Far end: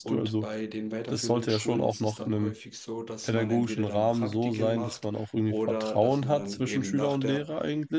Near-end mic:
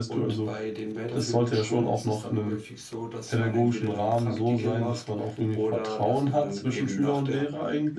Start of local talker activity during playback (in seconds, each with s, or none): none